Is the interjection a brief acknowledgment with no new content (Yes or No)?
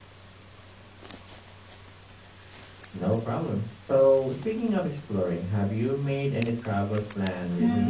No